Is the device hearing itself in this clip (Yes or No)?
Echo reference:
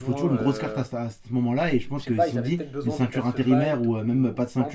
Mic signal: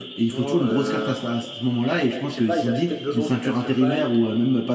Yes